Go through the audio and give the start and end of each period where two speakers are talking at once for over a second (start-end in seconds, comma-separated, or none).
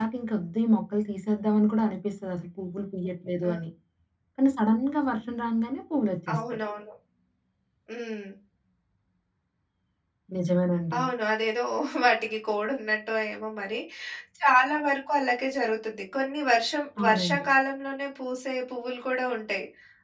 none